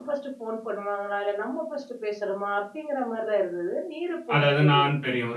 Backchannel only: No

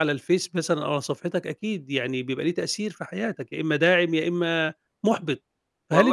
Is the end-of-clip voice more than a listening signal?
No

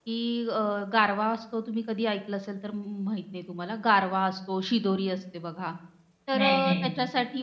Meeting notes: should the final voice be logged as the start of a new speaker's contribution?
No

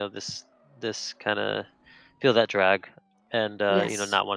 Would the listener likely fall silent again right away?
Yes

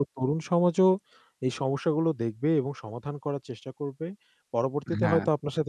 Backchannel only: Yes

